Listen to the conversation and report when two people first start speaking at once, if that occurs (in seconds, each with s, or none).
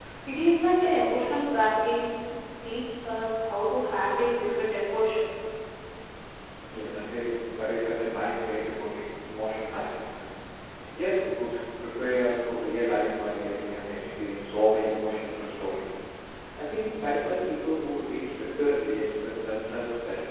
none